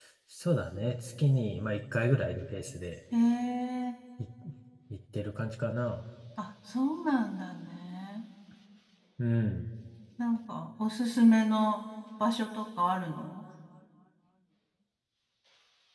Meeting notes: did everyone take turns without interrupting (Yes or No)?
Yes